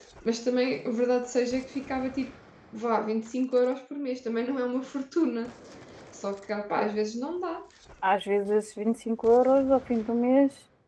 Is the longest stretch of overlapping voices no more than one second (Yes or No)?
Yes